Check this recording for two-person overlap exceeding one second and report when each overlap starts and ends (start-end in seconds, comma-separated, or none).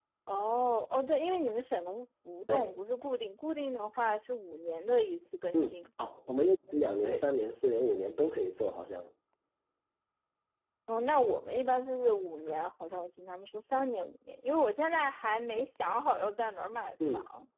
none